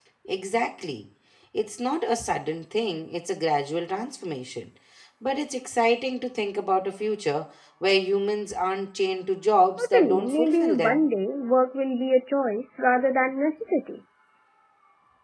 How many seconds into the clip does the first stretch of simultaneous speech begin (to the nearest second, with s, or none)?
10 s